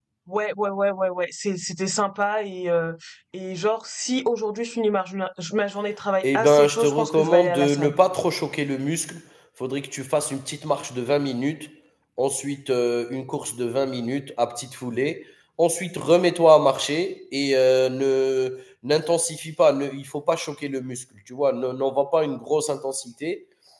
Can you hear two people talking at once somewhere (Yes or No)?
Yes